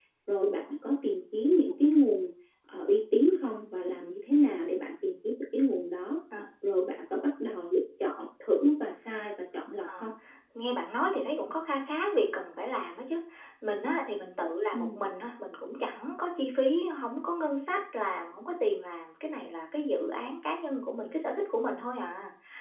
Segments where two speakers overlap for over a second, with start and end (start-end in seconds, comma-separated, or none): none